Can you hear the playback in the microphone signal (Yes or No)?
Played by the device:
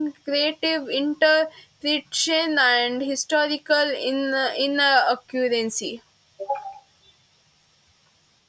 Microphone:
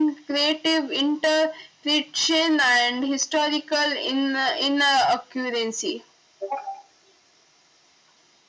Yes